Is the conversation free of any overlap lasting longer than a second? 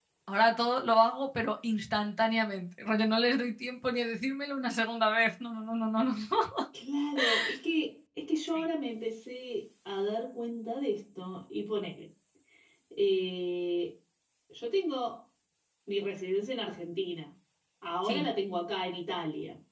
Yes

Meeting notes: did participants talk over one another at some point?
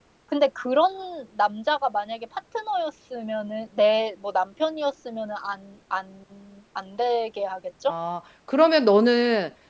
No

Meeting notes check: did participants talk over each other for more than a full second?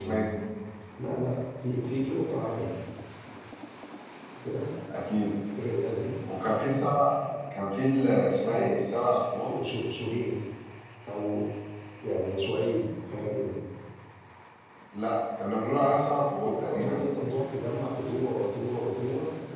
No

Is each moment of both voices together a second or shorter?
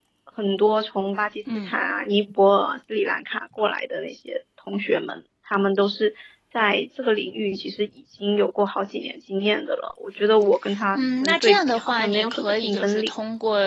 No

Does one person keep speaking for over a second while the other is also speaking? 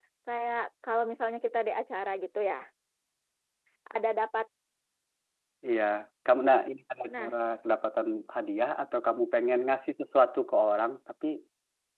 No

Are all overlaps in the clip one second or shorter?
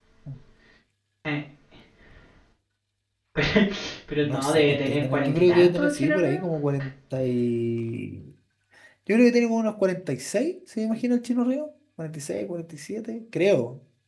No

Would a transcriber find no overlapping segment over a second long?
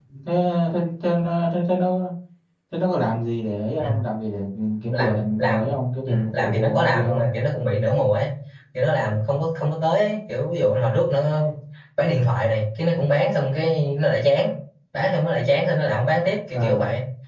No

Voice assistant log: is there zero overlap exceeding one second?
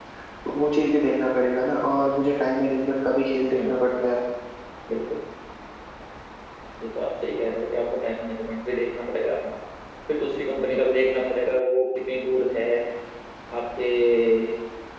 Yes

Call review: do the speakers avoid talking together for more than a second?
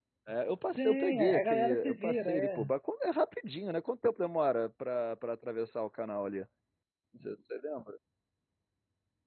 No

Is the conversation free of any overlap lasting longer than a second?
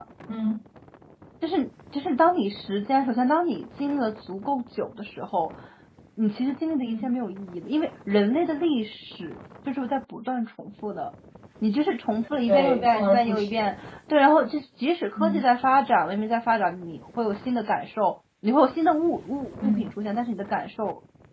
No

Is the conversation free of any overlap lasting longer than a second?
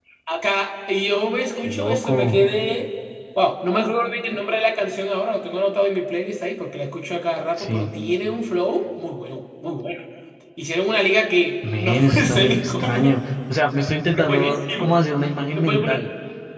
No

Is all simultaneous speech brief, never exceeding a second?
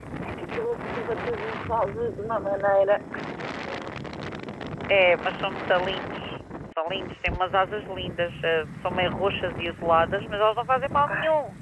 Yes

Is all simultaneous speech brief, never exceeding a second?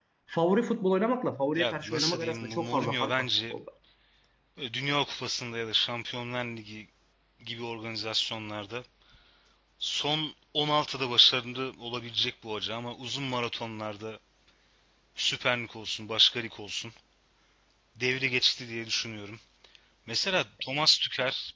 No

